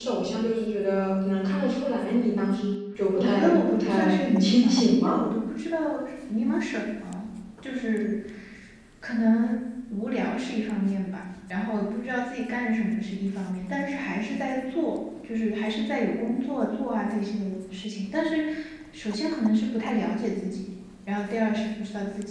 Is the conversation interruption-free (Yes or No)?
No